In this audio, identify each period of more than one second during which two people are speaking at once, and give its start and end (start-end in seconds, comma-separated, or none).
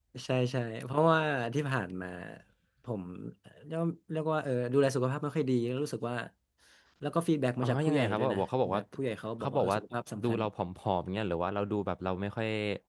7.6-8.8